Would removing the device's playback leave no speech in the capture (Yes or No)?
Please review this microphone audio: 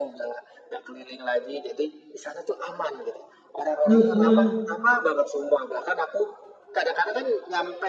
No